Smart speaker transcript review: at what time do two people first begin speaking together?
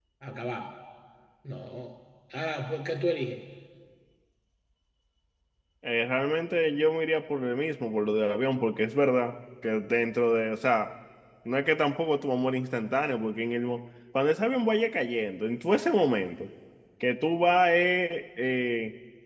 none

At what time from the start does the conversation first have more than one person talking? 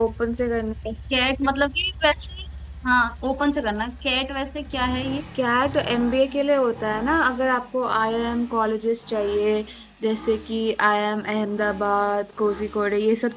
none

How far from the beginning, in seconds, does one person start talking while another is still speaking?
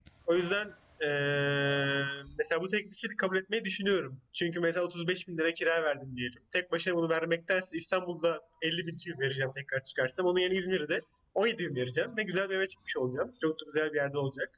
none

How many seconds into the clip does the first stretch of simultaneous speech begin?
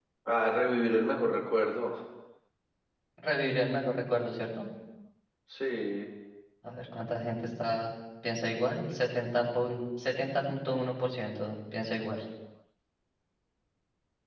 none

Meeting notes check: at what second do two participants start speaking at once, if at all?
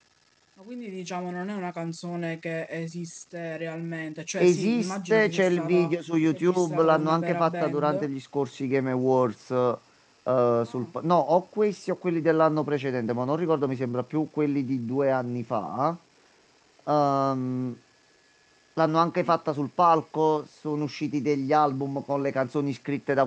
4.4 s

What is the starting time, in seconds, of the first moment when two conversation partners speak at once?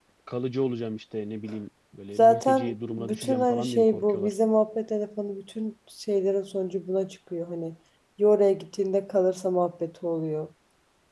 2.2 s

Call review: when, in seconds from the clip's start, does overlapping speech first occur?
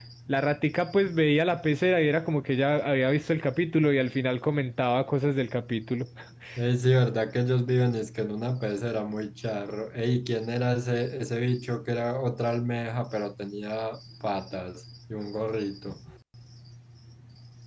none

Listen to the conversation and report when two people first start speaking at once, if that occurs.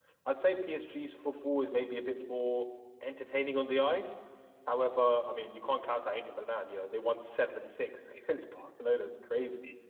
none

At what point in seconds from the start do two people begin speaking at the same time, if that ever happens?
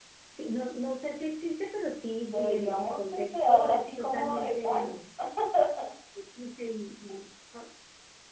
2.2 s

